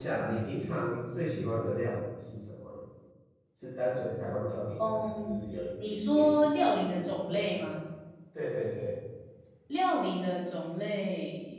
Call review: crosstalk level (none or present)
present